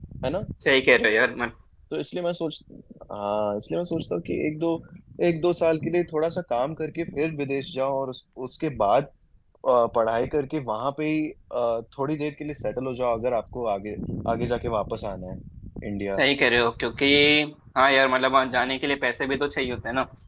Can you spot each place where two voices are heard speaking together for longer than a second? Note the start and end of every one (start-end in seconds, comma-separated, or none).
none